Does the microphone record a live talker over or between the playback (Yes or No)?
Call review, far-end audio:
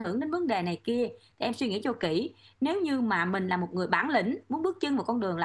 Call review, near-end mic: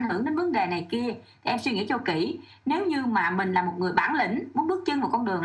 No